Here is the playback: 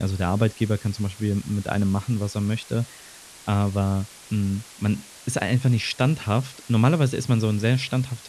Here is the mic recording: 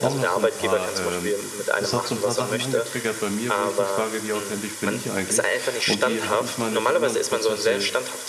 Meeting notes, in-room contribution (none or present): present